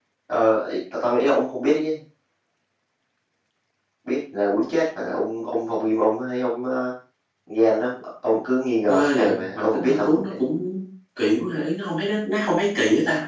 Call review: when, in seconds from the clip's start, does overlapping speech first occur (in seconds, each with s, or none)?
8.9 s